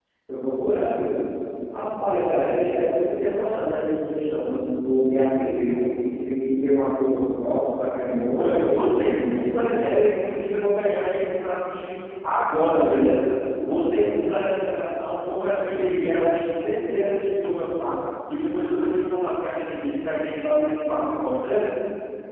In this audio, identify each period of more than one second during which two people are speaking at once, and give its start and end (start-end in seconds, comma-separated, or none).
8.4-9.6